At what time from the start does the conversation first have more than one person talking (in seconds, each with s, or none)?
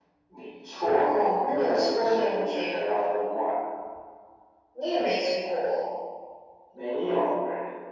1.0 s